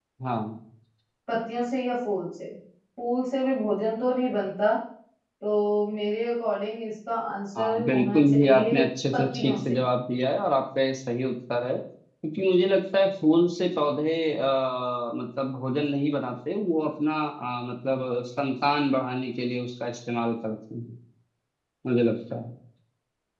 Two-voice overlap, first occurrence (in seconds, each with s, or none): 7.5 s